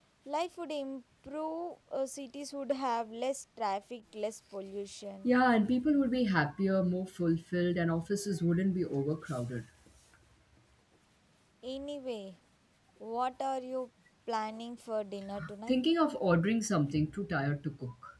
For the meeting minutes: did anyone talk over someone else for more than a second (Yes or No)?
No